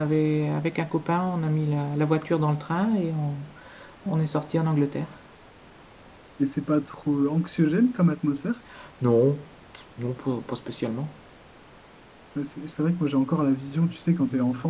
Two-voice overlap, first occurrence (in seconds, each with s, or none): none